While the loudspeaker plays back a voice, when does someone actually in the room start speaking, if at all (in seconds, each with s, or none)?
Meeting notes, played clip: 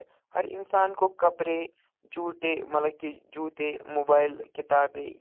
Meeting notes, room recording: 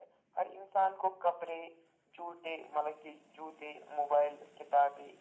none